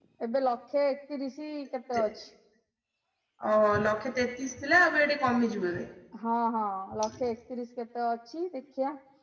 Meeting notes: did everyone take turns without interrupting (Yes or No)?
Yes